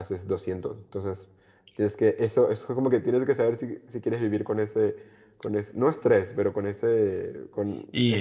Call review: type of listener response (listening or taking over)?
taking over